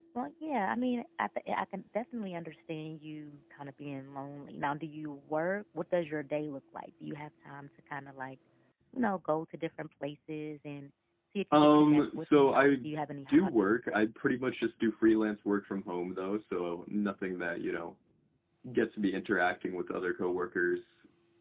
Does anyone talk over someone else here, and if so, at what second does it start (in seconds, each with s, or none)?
11.5 s